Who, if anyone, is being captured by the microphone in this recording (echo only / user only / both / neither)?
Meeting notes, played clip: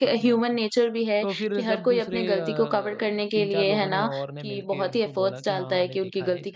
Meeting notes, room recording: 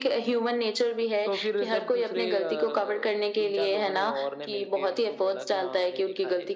echo only